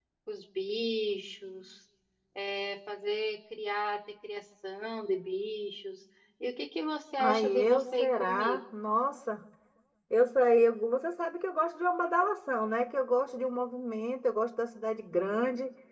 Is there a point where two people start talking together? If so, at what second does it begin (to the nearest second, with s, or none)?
7 s